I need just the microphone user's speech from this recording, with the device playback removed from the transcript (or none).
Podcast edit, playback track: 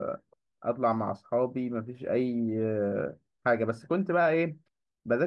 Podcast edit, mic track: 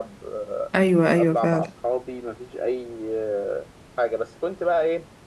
ايوه ايوه فعلا